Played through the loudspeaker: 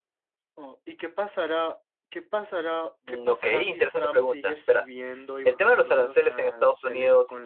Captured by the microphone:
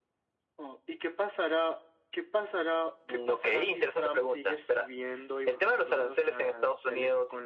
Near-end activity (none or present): none